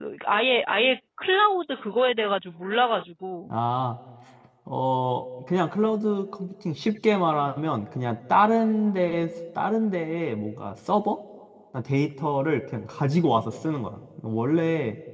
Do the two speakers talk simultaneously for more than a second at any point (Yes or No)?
No